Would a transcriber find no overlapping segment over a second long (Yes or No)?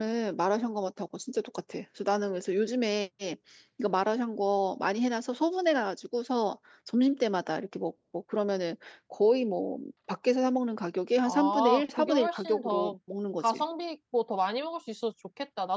No